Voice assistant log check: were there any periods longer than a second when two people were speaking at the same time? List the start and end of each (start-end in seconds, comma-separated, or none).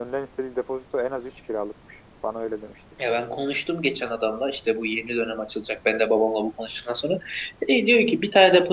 none